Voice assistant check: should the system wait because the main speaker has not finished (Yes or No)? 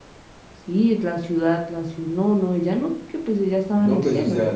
No